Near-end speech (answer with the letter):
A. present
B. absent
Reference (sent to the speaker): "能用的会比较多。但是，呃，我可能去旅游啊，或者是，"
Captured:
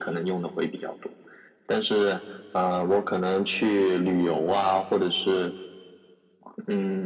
B